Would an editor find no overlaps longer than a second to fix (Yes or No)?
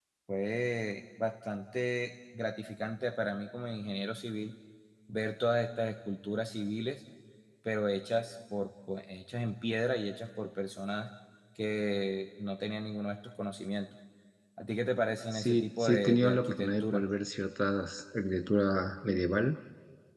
No